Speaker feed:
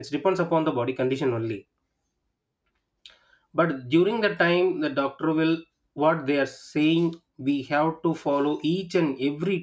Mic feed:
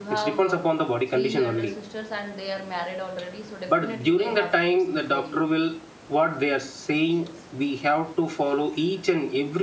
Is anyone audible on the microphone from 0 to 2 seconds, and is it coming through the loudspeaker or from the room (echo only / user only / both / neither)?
both